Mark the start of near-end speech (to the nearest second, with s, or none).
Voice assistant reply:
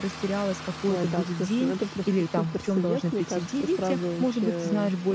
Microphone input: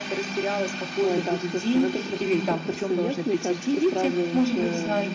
none